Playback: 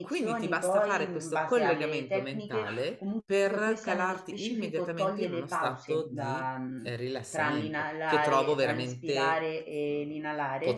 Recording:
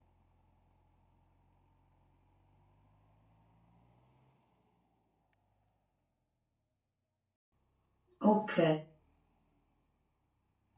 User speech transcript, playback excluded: ok.

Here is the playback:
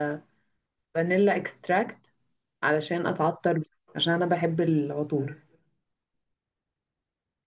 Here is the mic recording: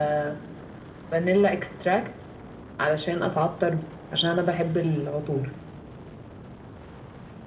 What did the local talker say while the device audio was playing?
none

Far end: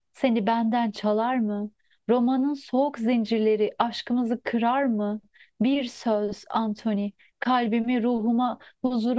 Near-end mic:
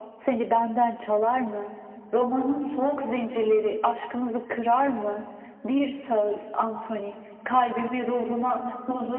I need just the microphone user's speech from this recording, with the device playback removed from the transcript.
none

